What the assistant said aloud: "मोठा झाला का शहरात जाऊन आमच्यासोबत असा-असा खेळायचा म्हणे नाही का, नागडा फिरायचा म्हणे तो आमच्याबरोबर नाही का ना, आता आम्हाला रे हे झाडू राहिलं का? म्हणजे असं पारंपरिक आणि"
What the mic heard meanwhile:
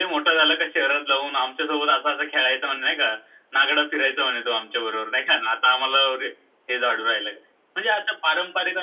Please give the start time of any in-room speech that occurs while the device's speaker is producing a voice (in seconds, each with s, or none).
none